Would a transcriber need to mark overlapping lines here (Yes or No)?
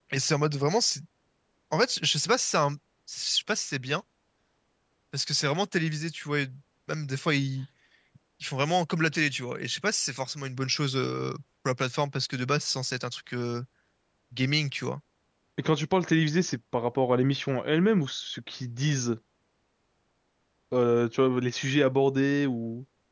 No